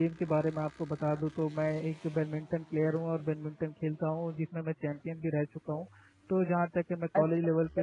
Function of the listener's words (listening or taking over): taking over